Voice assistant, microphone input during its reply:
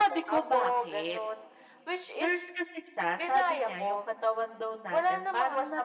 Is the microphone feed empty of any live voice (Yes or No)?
No